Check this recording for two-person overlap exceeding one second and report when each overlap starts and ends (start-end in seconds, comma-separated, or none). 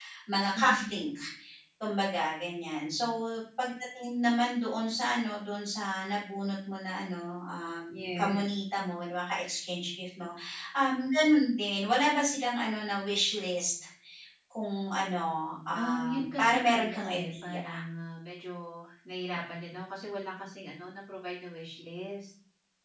15.8-17.6